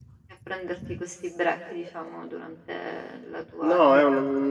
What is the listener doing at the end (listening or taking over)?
taking over